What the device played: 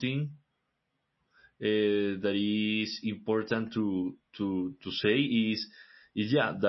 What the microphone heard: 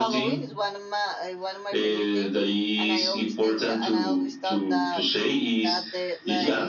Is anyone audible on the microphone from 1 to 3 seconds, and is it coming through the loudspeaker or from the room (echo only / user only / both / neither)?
both